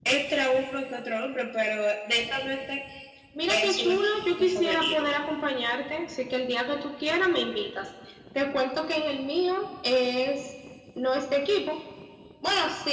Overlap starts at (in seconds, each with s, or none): 3.5 s